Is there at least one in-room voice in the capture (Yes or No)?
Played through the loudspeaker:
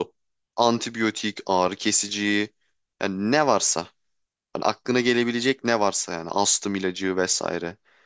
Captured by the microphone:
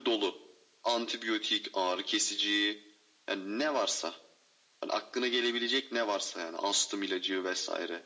No